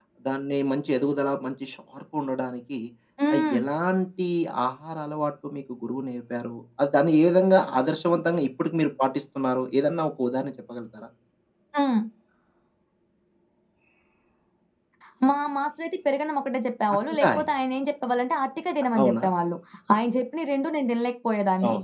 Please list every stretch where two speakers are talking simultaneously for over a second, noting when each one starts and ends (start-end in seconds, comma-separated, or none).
none